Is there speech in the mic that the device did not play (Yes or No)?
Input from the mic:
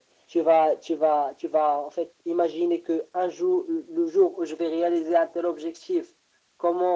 No